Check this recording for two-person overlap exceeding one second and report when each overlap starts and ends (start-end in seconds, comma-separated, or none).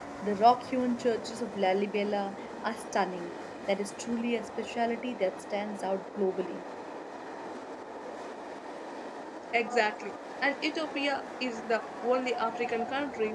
none